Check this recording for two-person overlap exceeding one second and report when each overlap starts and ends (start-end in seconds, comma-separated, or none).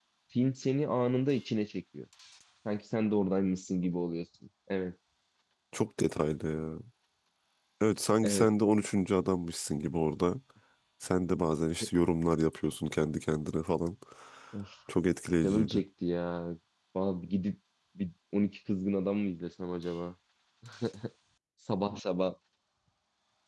none